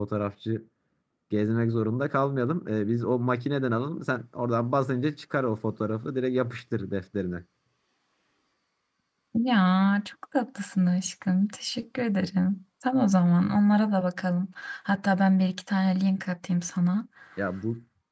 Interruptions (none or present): none